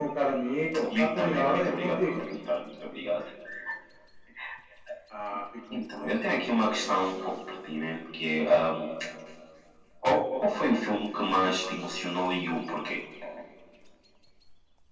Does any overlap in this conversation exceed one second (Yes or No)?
Yes